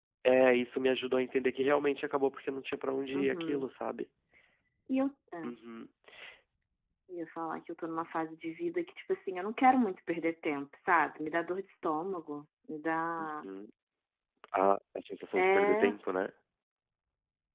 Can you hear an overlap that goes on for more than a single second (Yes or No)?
No